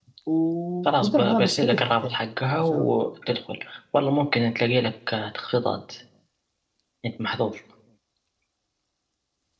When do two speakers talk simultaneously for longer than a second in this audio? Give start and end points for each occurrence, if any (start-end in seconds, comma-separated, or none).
0.8-2.1